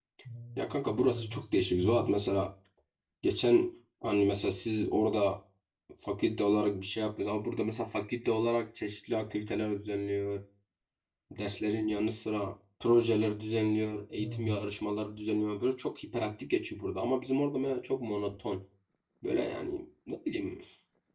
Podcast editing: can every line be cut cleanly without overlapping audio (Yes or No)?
No